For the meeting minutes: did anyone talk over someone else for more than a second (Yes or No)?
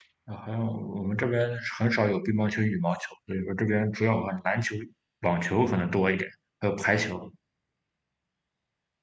No